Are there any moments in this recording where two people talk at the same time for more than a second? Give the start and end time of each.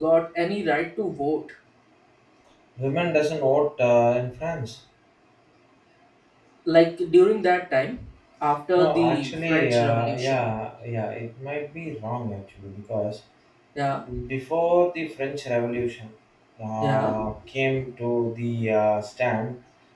8.8-10.4

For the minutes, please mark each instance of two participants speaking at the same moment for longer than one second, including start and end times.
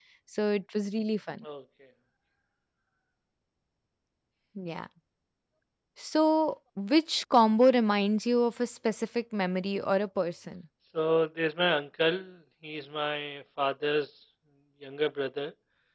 none

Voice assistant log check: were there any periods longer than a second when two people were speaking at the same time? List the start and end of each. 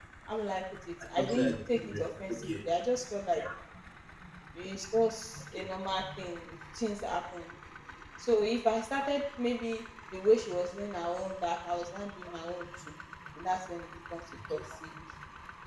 1.2-2.5

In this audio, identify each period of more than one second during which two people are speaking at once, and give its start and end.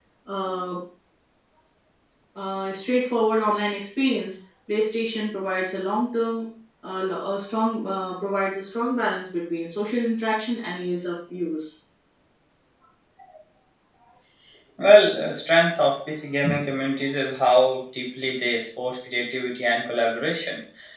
none

